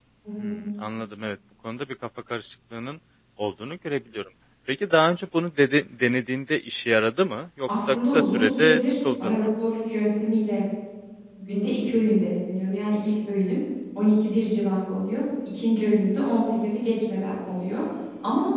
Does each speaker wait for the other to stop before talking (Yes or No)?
No